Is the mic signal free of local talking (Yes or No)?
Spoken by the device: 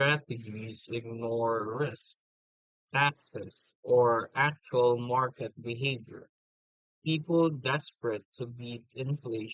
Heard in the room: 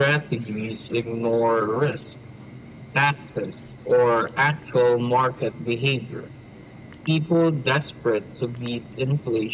Yes